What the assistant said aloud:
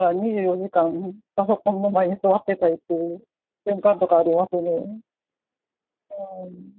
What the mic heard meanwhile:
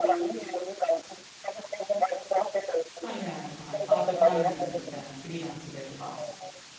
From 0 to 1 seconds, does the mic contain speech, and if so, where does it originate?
both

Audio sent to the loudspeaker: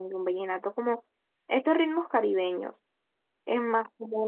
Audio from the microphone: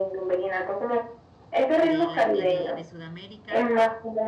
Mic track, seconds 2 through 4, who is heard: both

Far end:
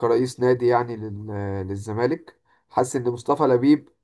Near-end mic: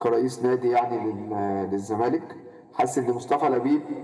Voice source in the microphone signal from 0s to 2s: echo only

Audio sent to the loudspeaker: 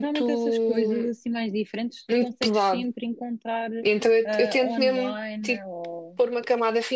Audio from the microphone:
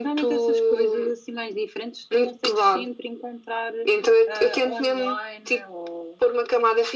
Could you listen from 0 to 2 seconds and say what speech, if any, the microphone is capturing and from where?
echo only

